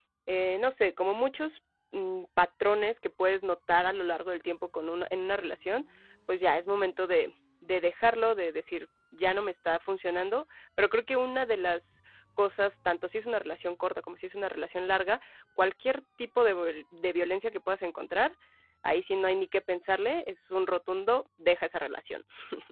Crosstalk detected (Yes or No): No